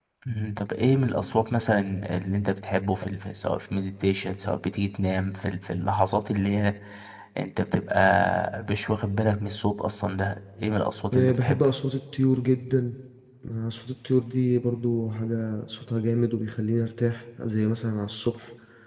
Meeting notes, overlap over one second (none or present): none